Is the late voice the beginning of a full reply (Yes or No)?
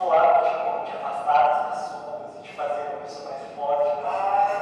Yes